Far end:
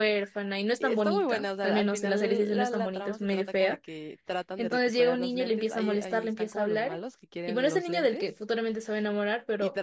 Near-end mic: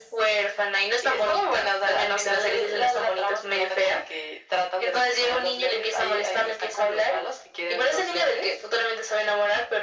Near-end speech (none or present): none